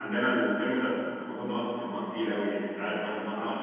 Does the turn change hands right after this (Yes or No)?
Yes